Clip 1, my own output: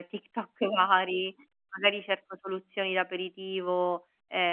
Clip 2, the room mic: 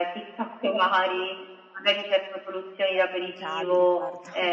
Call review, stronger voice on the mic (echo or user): echo